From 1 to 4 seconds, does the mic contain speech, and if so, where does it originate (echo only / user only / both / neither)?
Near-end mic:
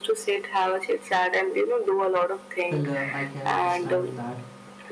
both